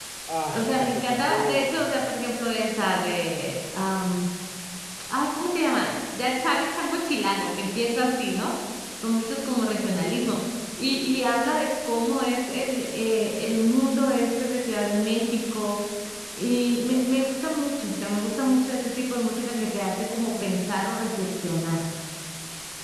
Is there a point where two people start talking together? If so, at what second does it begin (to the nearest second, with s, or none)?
1 s